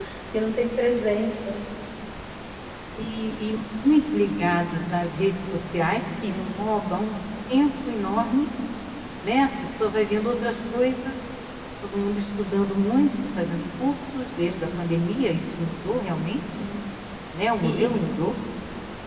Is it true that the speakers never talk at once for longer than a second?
Yes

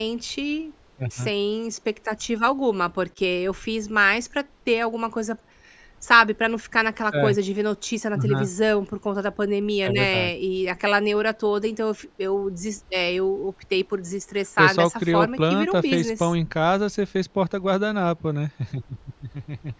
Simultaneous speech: Yes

